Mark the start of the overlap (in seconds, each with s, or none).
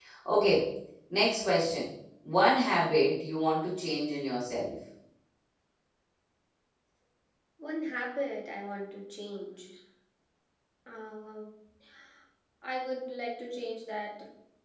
none